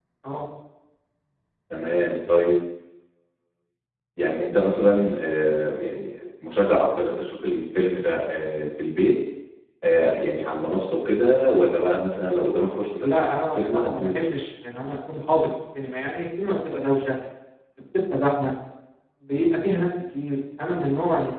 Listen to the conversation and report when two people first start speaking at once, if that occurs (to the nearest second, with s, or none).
13 s